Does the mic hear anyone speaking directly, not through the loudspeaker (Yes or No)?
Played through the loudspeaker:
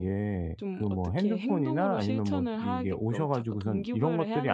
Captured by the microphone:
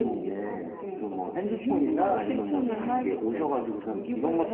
Yes